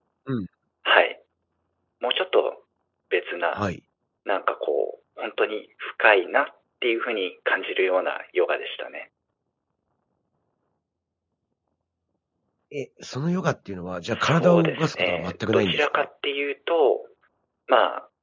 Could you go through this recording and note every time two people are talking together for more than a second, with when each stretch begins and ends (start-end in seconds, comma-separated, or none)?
14.1-16.1